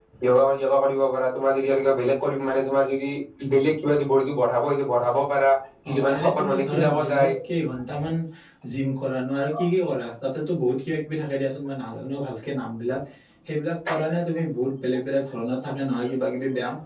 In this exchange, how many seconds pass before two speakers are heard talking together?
5.9 s

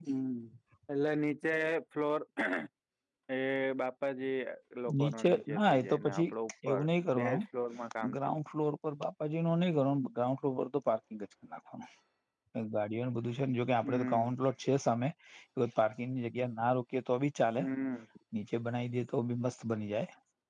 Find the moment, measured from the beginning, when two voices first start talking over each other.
5.0 s

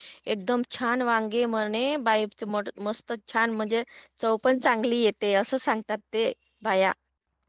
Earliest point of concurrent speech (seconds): none

